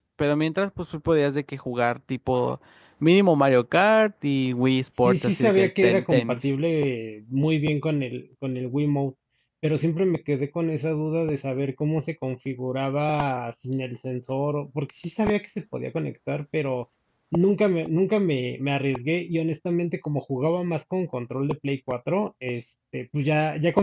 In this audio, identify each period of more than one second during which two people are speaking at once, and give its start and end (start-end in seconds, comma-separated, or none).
5.0-6.5